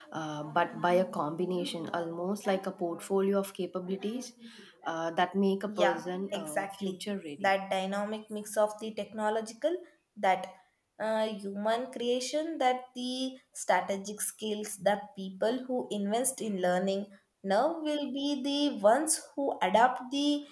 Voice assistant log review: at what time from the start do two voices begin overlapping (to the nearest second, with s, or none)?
6 s